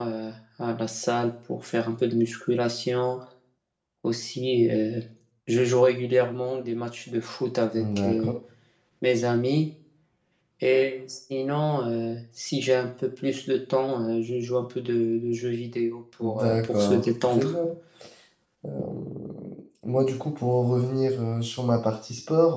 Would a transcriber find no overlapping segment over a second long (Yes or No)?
No